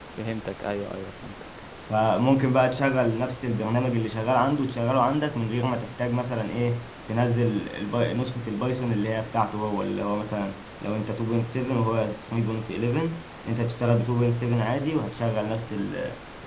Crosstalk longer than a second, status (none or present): none